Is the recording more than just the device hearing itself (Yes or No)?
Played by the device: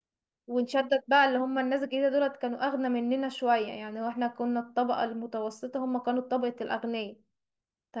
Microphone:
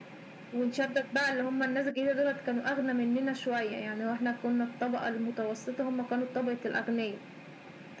No